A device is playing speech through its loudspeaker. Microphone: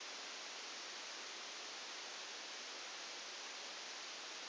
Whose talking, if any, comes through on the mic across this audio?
neither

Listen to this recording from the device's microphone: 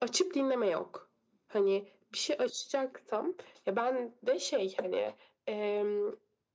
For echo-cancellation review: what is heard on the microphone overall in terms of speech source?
echo only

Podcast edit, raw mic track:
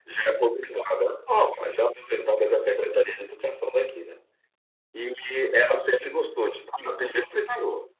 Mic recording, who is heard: echo only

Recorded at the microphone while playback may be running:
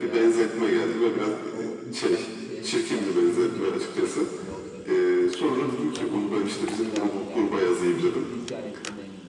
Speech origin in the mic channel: both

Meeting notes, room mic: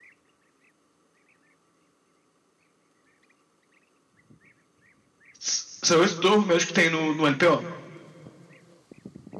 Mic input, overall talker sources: user only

